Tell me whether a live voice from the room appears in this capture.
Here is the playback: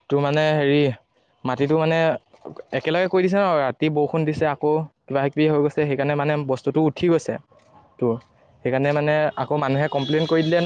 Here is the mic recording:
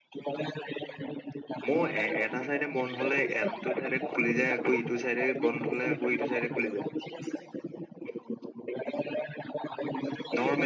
Yes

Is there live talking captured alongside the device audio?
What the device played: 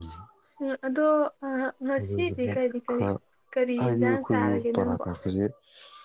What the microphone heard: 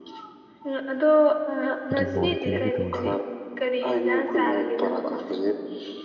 Yes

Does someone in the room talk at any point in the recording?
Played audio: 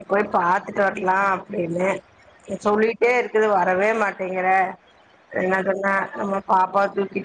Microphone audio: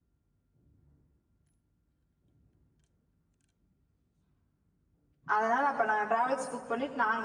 Yes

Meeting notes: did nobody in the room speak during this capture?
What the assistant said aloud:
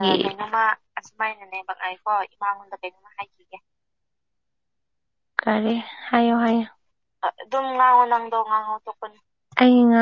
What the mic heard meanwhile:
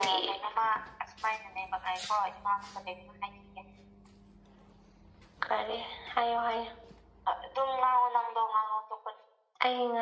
Yes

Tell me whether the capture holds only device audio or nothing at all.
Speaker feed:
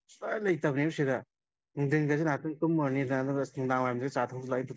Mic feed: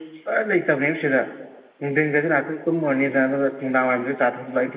Yes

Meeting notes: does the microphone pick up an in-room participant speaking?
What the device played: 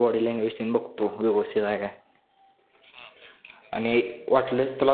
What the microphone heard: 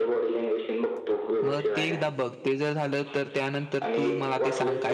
Yes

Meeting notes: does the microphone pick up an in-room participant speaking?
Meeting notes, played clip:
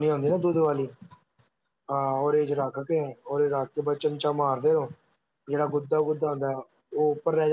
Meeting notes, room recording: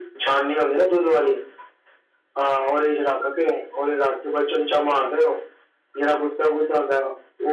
No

